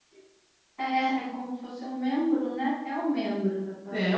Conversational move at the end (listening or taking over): taking over